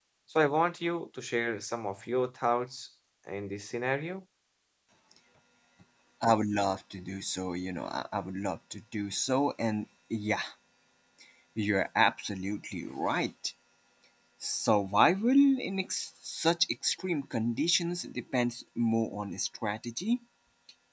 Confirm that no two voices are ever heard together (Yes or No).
Yes